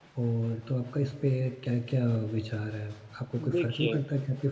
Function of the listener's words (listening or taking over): listening